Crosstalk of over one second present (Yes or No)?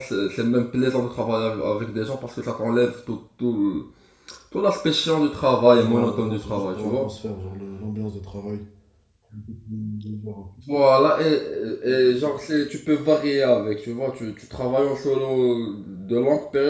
Yes